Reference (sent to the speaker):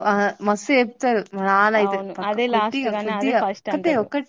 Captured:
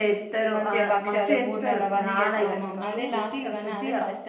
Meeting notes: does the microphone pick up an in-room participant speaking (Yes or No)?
Yes